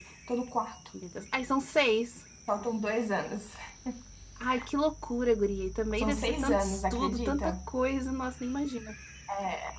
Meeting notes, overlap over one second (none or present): present